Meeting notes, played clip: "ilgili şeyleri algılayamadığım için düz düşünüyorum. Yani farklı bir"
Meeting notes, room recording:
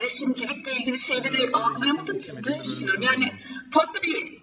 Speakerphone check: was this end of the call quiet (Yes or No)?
No